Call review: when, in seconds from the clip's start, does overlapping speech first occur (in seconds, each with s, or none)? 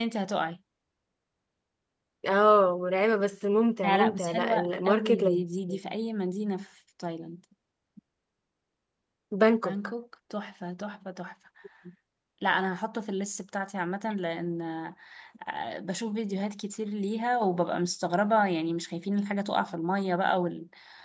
3.8 s